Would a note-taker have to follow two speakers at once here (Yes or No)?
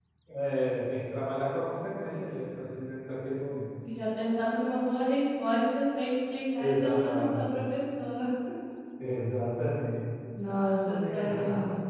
Yes